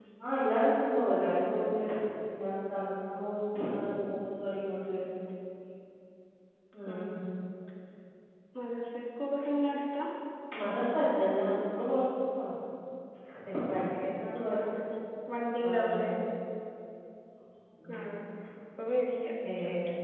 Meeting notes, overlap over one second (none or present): none